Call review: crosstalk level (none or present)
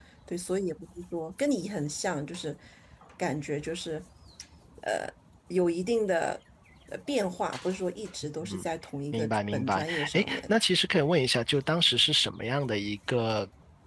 present